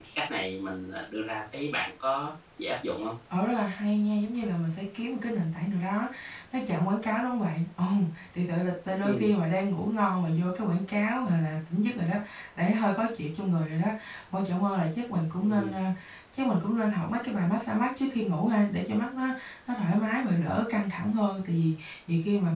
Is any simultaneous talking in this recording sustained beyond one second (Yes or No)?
No